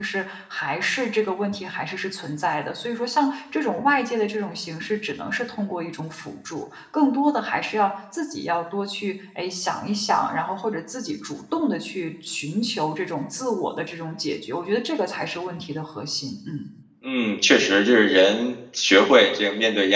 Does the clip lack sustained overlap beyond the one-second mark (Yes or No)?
Yes